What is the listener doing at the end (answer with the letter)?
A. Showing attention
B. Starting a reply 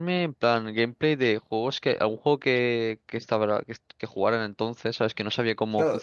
B